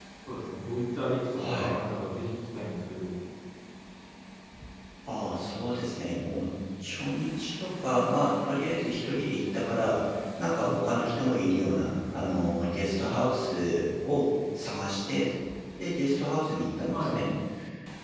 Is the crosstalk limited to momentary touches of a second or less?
Yes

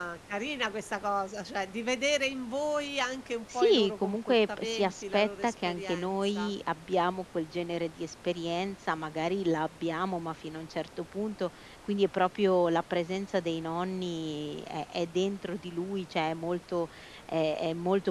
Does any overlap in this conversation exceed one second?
Yes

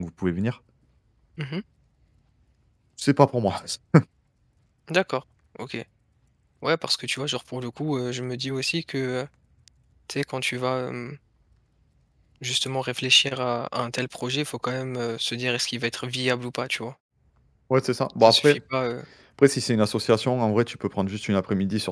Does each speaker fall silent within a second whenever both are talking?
Yes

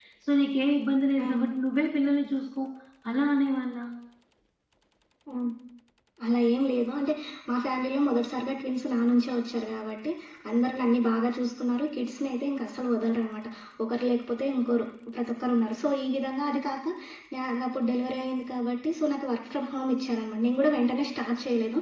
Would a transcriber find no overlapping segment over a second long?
Yes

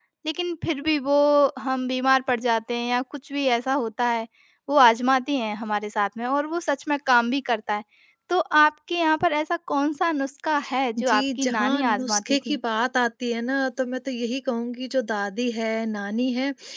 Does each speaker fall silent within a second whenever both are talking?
No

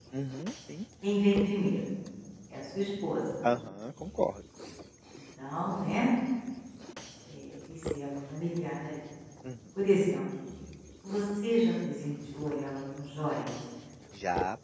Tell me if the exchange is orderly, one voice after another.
Yes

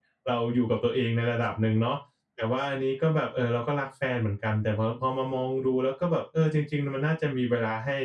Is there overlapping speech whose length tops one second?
No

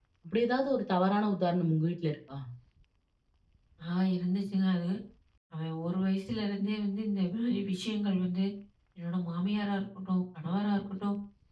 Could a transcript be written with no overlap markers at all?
Yes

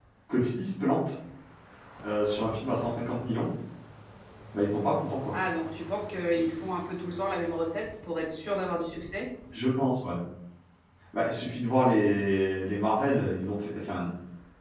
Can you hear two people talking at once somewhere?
No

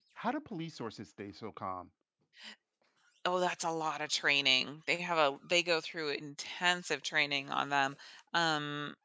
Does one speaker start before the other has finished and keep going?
No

